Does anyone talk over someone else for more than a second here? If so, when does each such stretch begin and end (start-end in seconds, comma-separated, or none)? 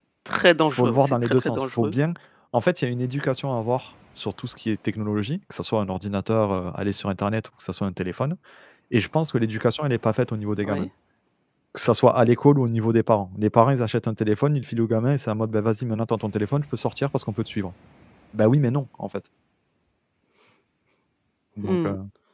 0.7-1.9